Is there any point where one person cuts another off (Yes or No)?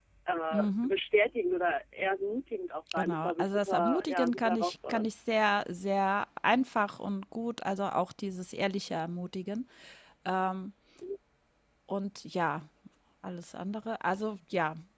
Yes